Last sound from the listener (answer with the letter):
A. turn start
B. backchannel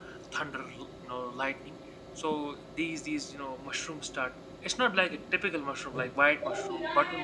A